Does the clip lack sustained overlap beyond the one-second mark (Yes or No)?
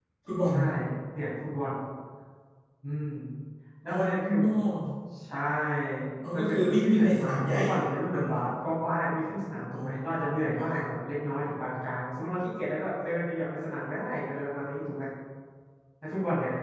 No